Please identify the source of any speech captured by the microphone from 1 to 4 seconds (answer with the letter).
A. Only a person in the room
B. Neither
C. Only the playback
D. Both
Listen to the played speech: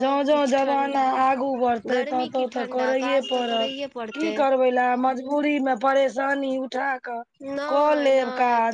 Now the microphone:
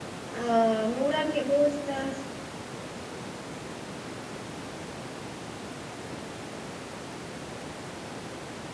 A